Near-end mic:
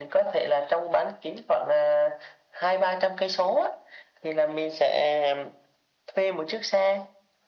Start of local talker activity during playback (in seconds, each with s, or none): none